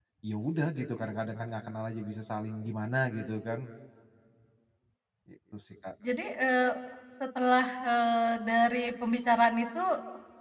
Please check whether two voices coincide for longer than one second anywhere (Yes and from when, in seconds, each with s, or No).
No